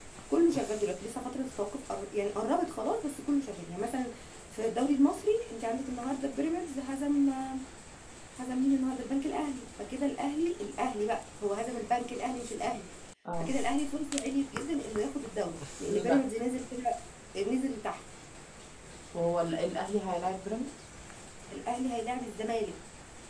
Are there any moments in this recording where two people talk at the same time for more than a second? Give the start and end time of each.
none

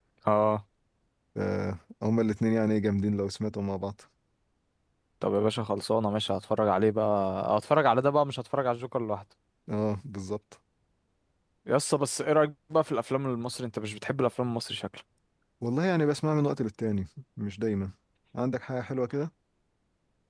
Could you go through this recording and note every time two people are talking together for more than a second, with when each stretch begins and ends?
none

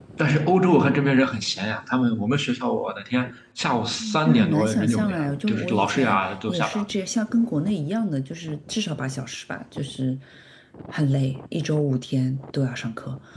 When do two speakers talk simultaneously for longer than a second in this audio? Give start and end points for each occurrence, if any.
4.2-6.8

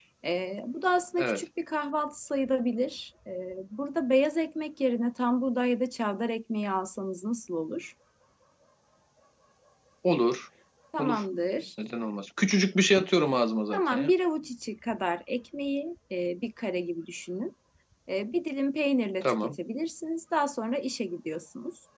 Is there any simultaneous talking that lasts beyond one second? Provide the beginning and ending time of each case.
none

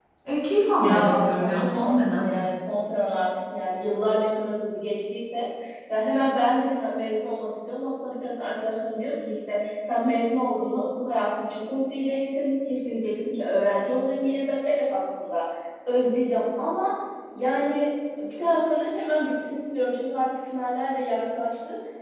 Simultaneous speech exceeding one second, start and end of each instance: 0.8-2.3

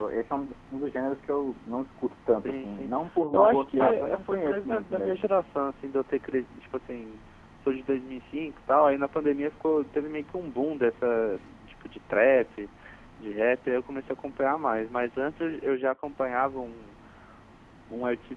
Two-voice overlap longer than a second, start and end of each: 3.3-5.2

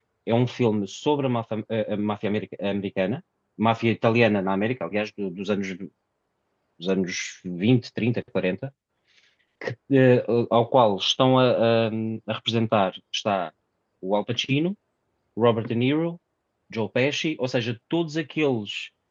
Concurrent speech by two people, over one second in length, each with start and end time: none

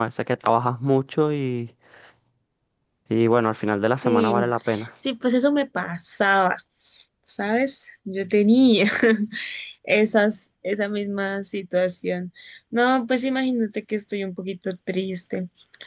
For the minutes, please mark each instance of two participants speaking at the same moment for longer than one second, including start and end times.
none

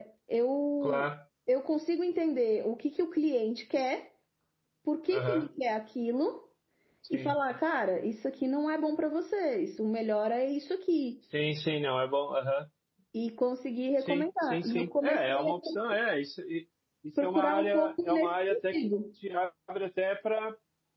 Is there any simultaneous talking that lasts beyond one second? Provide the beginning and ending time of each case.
14.0-15.5, 17.2-18.9

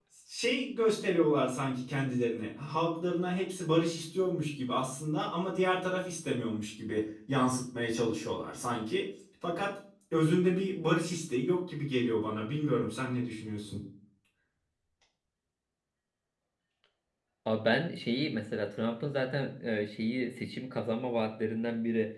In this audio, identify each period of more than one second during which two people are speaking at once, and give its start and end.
none

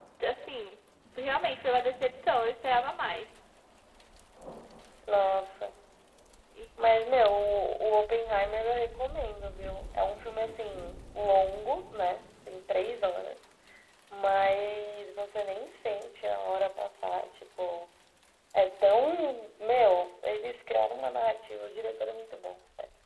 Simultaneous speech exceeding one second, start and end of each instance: none

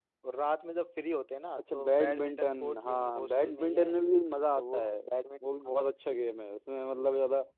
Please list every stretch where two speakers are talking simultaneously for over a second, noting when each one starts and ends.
1.7-4.0

